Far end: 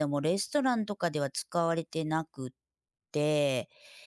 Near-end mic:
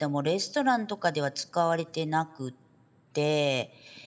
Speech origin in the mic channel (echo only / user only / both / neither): echo only